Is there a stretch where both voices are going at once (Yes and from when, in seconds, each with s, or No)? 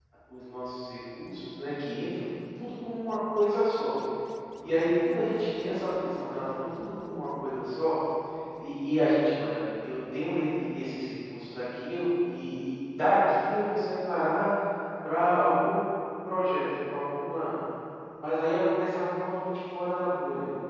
No